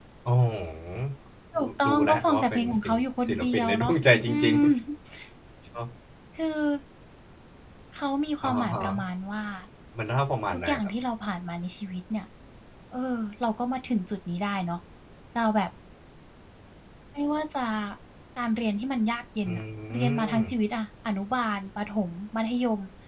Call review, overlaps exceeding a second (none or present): present